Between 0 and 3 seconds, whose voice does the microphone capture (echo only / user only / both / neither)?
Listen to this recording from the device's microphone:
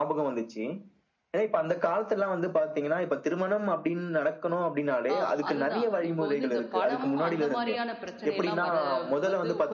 echo only